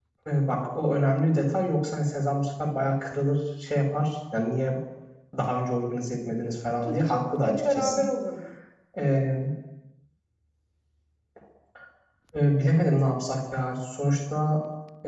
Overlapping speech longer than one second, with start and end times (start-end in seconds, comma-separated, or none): 6.8-8.1